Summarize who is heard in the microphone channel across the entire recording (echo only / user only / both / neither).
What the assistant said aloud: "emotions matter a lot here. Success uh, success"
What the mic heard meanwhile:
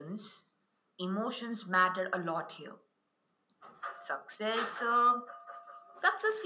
echo only